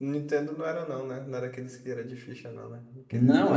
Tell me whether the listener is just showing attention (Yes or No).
No